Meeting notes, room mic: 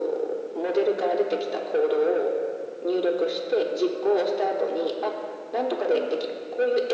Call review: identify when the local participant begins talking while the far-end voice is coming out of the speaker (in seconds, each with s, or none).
none